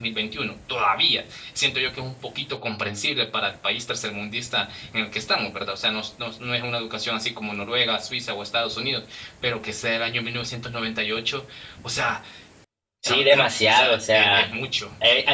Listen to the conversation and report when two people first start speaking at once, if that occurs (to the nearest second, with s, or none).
13 s